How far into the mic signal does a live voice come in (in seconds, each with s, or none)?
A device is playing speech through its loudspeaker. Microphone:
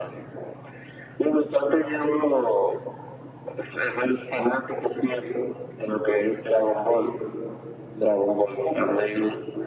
none